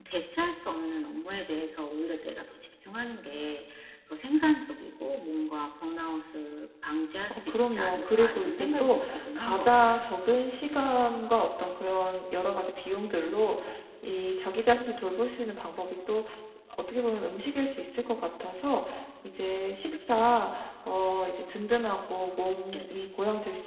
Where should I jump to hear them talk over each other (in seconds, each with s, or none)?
7.3 s